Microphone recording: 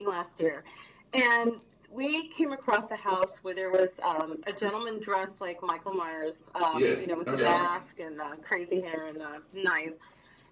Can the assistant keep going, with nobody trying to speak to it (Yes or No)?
No